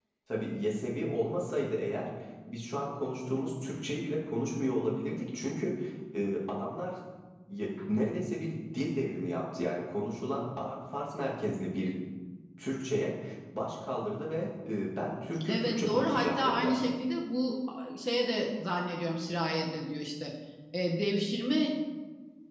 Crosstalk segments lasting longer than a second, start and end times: 15.5-16.8

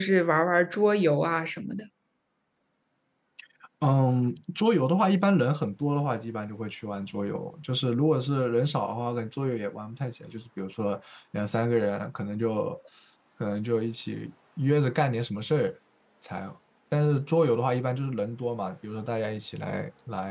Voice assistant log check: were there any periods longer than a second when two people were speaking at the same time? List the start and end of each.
none

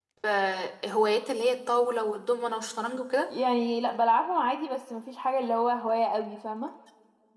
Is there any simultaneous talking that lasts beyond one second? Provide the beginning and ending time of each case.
none

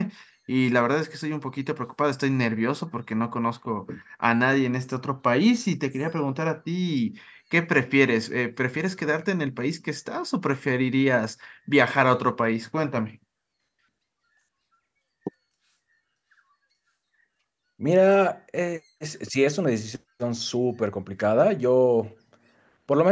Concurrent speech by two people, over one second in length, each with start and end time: none

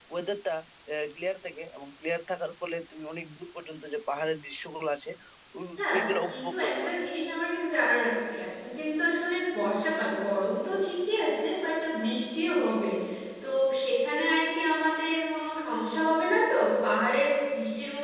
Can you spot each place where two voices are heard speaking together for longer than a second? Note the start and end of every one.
5.8-7.0

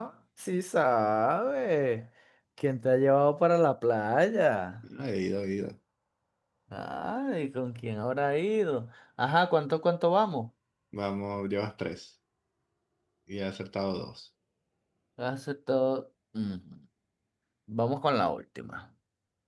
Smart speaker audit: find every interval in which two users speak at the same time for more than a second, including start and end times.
none

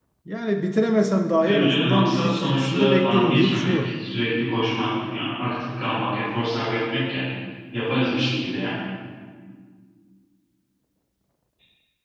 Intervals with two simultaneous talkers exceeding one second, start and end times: 1.4-3.9

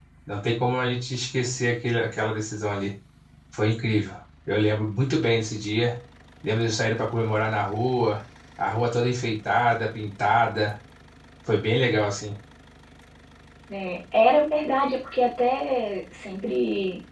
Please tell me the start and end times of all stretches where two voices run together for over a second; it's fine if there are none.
none

